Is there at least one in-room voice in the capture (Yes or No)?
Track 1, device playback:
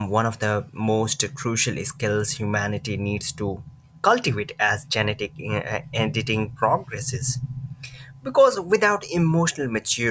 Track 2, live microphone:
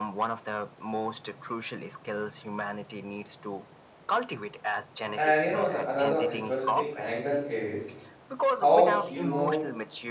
Yes